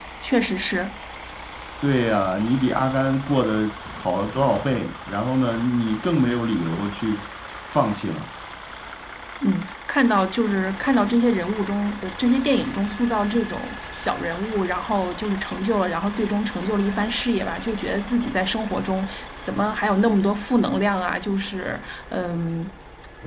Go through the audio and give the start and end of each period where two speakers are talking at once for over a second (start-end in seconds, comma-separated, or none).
none